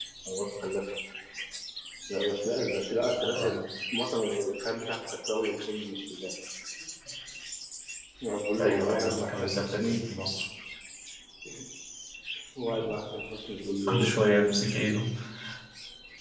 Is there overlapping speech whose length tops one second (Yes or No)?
Yes